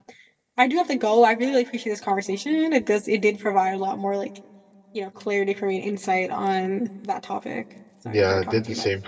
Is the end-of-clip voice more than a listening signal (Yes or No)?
Yes